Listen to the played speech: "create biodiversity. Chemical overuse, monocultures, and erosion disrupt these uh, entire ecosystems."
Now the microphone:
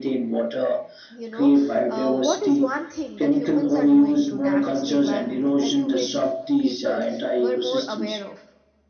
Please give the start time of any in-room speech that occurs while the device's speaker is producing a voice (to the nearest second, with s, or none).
1 s